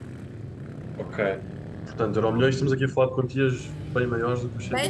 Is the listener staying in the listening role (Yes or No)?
No